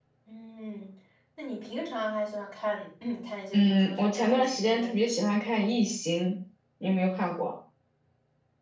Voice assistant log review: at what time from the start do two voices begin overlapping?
3.5 s

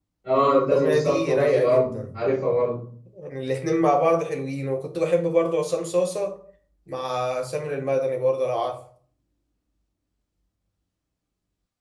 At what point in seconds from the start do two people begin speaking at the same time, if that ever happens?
0.6 s

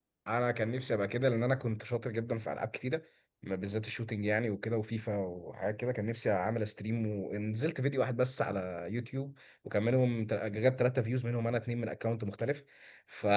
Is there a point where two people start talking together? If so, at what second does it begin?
none

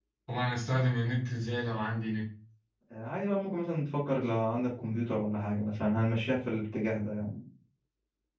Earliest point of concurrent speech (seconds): none

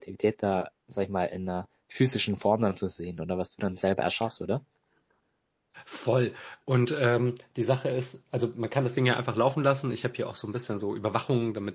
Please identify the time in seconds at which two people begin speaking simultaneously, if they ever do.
none

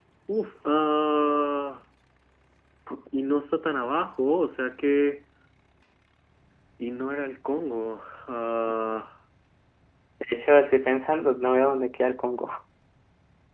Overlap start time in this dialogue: none

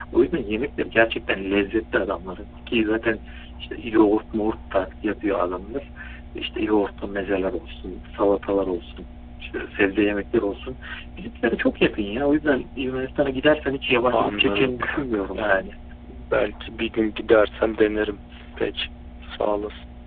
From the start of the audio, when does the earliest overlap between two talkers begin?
14.1 s

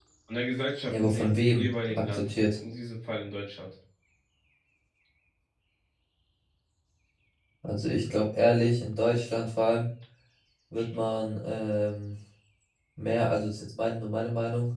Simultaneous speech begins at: 0.9 s

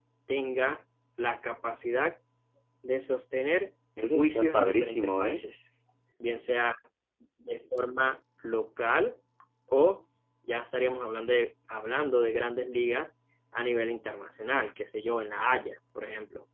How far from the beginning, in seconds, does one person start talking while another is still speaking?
4.1 s

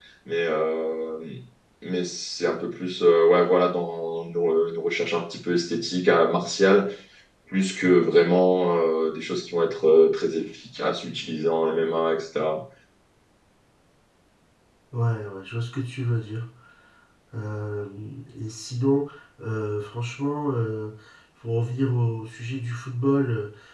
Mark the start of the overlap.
none

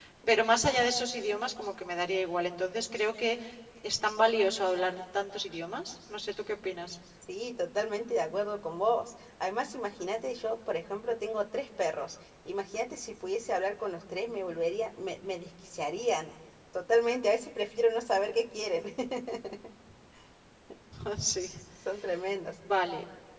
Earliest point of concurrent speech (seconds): none

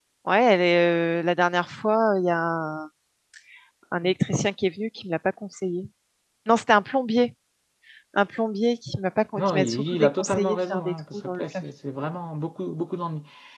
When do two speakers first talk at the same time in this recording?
9.4 s

